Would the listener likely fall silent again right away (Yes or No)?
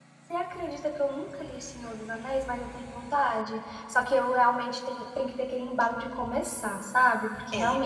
Yes